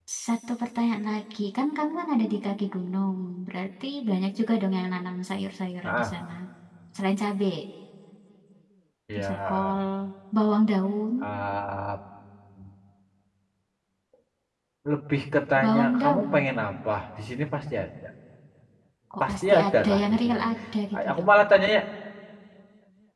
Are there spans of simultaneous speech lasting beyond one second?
Yes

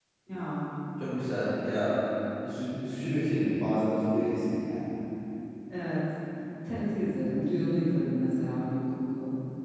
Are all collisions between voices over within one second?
Yes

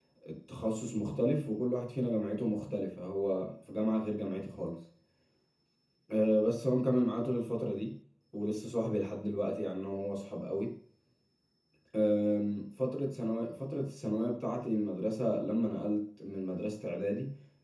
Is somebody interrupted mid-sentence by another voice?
No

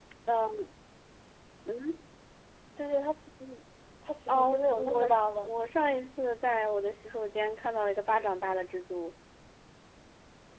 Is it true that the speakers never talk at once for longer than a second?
No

